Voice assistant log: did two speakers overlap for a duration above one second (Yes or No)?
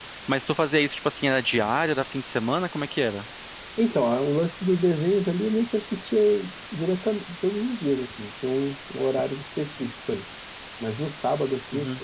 No